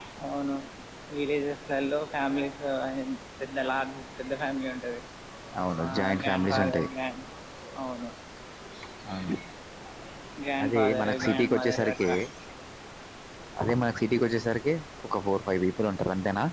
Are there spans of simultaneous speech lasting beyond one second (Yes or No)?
Yes